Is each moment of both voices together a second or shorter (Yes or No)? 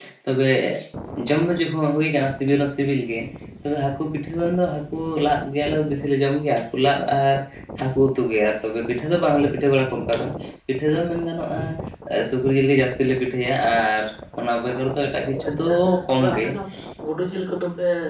Yes